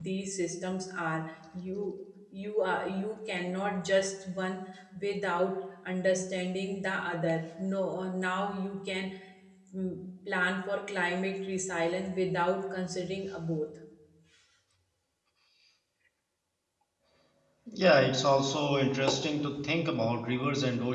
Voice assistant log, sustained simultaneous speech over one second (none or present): none